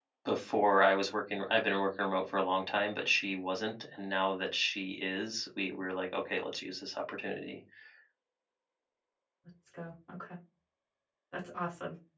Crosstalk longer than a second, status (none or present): none